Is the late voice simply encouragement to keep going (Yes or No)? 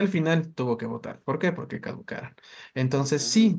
Yes